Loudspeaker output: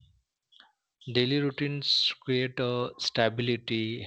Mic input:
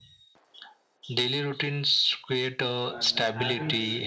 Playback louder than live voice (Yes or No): Yes